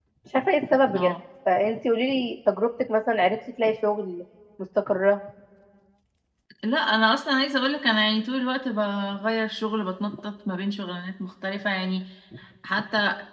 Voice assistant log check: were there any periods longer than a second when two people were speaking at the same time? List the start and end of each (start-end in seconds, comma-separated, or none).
none